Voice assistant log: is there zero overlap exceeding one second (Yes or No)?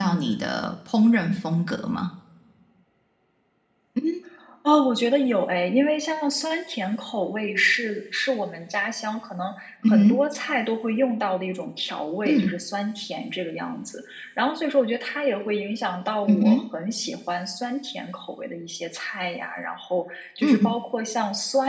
Yes